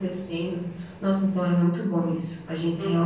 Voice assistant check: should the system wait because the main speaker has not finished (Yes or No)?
No